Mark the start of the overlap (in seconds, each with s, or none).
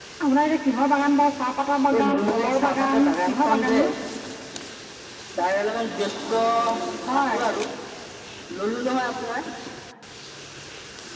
2.0 s